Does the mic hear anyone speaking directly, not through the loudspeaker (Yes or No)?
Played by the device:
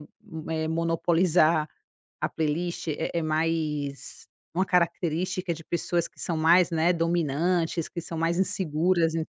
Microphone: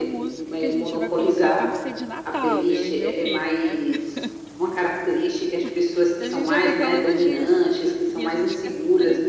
Yes